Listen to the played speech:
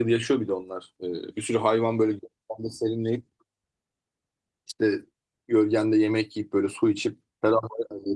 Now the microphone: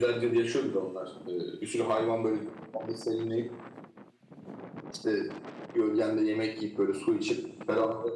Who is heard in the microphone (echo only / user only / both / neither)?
echo only